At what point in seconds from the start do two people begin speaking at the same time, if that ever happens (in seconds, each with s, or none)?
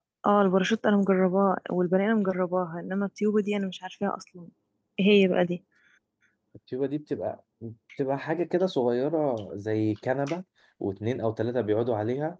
none